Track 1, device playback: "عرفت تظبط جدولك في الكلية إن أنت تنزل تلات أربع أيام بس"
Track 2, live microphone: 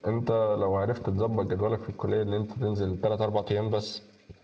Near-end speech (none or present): none